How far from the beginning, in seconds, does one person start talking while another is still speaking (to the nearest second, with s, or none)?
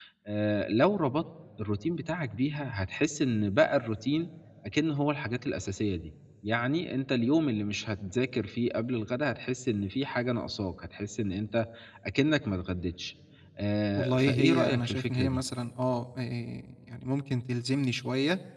14 s